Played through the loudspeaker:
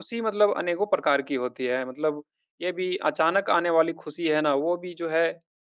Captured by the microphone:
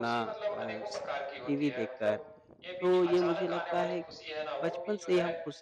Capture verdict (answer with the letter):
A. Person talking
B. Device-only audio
A